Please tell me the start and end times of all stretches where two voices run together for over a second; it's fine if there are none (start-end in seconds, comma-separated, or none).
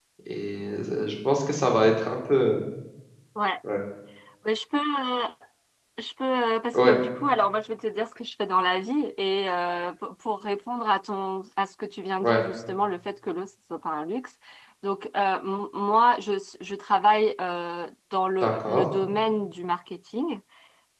none